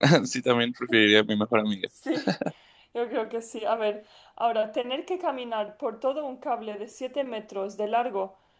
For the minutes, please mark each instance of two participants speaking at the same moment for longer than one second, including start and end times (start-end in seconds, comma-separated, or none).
none